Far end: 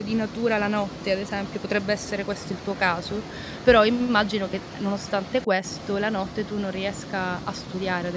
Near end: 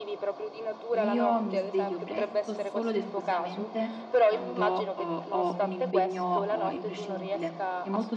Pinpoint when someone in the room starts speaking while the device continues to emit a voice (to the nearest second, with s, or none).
1 s